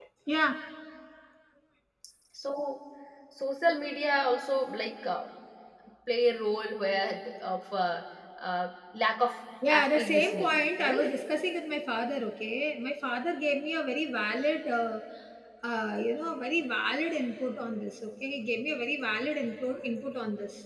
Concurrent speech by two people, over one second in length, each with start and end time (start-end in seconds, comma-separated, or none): 9.7-11.2